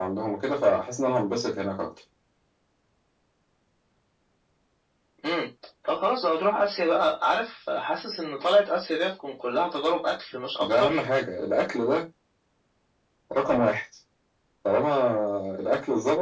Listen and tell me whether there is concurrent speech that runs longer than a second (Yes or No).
No